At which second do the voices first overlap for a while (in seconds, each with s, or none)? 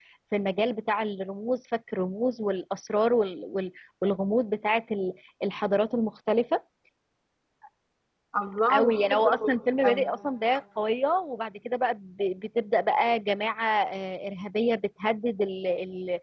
8.7 s